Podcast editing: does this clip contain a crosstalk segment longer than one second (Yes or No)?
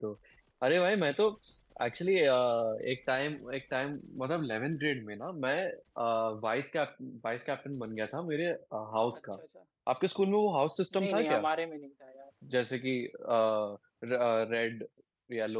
No